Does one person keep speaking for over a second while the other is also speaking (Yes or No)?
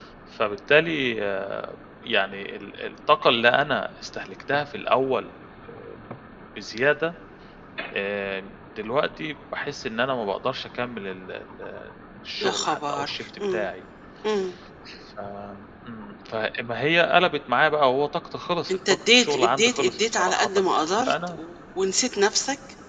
Yes